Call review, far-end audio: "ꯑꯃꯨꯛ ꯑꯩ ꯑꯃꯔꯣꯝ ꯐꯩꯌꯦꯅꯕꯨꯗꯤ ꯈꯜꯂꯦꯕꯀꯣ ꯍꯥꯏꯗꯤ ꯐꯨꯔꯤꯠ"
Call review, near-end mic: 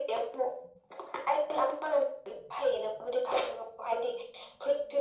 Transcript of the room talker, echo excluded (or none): none